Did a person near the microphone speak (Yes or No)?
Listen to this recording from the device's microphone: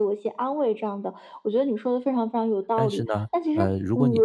Yes